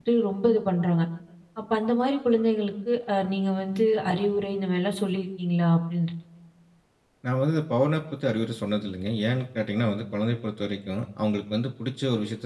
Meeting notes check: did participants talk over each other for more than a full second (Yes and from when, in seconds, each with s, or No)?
No